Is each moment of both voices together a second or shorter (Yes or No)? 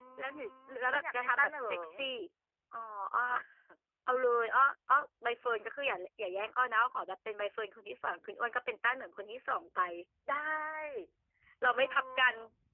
No